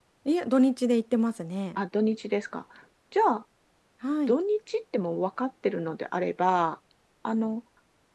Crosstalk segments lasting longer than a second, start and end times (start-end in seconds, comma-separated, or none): none